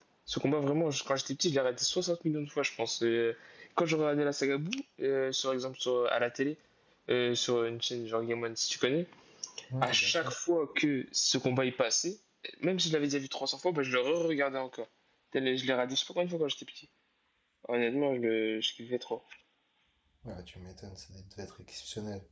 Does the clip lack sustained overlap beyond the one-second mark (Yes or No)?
Yes